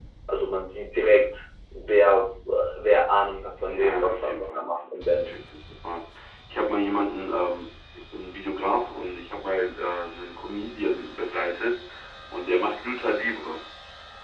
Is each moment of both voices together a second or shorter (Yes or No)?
No